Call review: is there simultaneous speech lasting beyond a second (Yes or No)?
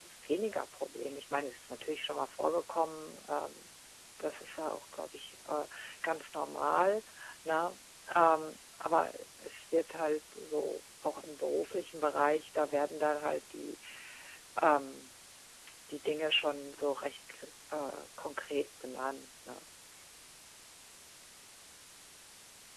No